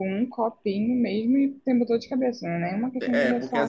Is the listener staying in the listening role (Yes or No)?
No